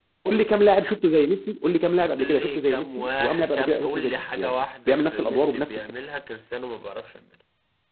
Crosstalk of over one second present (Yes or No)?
Yes